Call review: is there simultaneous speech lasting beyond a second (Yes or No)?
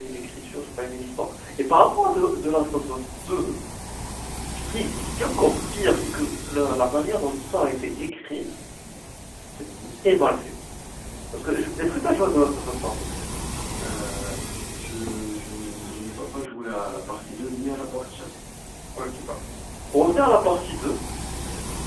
No